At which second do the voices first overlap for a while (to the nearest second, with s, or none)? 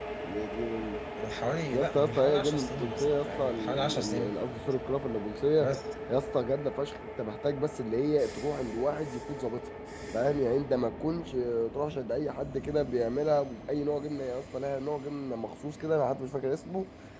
2 s